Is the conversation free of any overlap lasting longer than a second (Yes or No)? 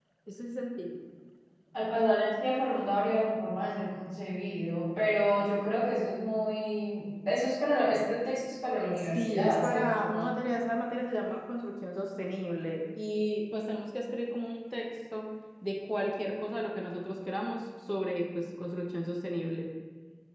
No